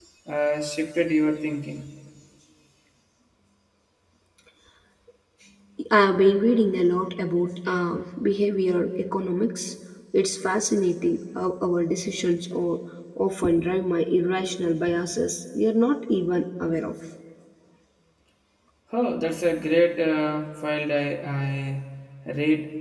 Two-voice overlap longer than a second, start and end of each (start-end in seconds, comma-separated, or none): none